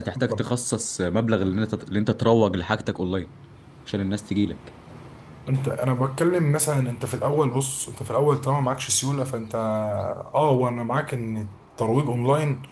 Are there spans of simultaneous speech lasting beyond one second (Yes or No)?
No